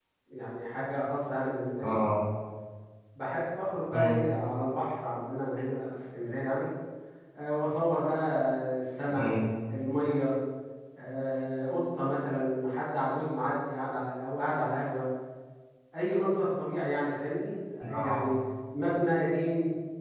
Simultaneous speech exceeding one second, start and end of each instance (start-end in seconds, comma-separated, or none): none